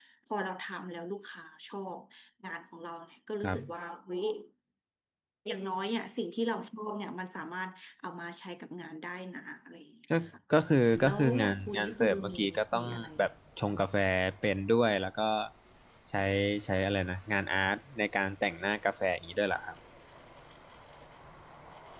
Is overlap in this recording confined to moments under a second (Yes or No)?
No